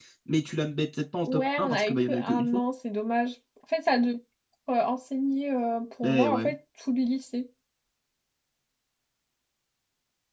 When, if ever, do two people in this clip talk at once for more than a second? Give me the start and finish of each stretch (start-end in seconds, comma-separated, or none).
1.3-2.6